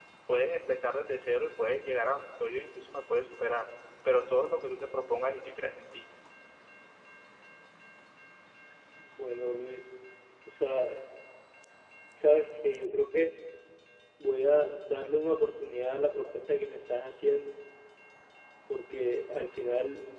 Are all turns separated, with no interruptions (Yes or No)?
Yes